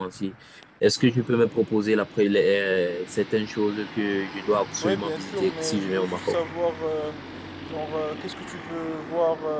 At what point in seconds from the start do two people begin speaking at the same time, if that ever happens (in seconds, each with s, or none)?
4.8 s